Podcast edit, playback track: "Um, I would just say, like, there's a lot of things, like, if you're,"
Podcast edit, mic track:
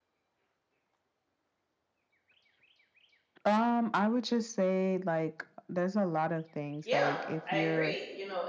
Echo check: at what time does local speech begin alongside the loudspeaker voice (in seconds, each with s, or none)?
6.8 s